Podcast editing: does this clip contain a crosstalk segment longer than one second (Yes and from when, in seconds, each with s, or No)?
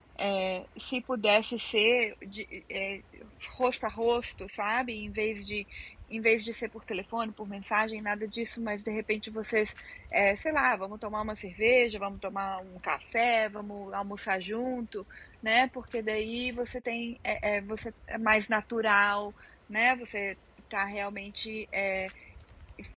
No